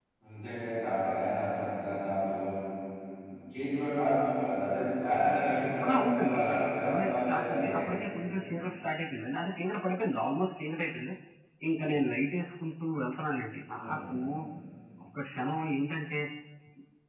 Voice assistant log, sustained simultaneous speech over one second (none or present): present